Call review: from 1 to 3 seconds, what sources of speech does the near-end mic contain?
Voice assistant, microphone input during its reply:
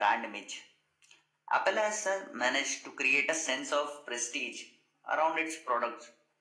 echo only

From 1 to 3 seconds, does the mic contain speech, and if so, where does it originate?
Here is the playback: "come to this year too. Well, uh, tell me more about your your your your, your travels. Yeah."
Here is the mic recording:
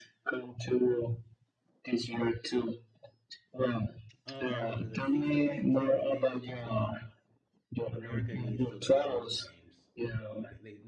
echo only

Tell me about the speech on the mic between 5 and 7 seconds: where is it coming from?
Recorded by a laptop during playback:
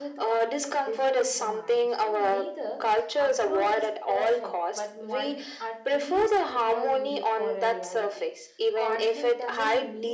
both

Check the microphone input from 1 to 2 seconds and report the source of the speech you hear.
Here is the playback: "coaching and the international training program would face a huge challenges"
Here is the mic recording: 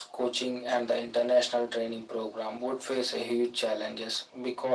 echo only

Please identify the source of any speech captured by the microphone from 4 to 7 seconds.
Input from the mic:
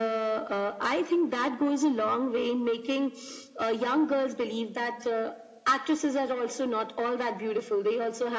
echo only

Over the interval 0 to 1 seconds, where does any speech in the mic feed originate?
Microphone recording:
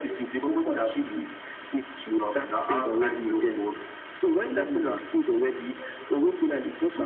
echo only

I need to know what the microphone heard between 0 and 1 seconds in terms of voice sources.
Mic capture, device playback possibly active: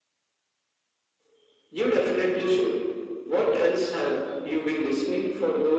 neither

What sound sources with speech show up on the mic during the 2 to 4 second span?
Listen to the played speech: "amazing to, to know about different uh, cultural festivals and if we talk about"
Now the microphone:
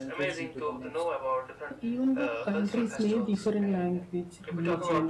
both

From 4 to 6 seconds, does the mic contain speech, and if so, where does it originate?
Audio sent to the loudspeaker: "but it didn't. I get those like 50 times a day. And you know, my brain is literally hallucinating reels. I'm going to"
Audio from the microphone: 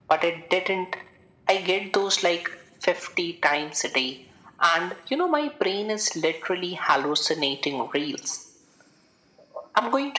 echo only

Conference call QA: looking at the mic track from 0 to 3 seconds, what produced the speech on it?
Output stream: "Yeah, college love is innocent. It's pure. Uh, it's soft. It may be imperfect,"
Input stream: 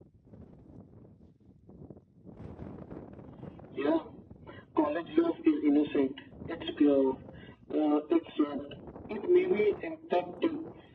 neither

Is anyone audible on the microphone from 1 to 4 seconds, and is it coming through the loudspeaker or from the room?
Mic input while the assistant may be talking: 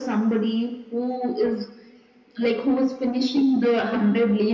echo only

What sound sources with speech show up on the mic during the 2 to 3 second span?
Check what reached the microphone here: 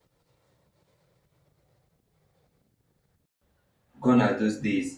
neither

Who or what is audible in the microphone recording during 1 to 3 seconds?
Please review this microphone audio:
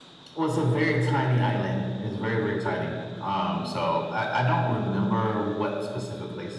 echo only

